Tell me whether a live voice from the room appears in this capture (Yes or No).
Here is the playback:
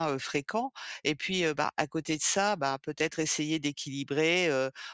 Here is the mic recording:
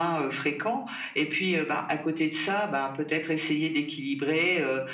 No